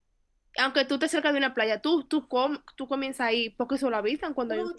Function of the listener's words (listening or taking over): taking over